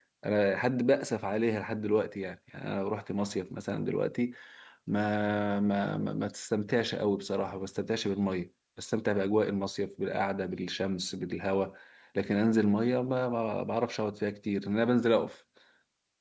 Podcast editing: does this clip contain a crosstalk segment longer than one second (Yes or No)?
No